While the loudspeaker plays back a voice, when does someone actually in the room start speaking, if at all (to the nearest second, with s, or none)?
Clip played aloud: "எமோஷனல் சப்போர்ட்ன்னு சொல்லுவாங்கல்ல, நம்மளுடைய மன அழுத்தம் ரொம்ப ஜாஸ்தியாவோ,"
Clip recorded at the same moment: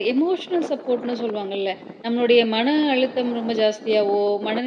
none